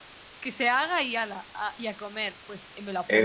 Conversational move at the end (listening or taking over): taking over